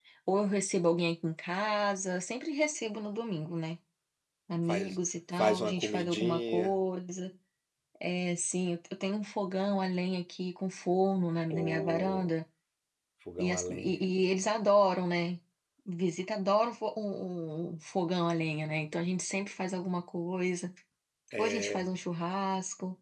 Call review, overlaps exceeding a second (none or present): present